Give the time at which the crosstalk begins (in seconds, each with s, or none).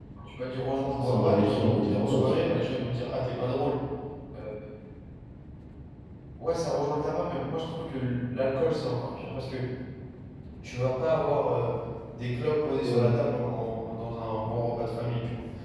1.0 s